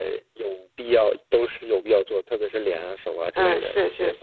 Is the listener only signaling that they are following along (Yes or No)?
No